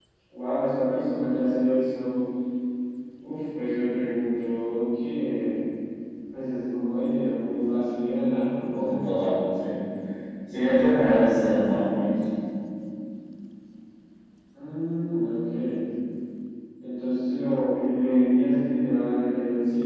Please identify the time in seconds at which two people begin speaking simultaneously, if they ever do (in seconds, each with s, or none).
none